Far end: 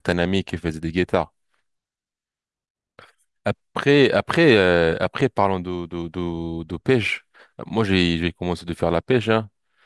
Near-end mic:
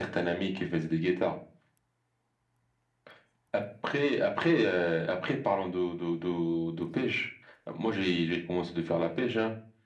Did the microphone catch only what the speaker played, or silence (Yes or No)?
Yes